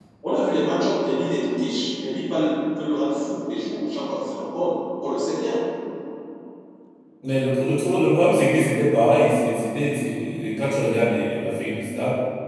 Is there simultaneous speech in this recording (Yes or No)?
No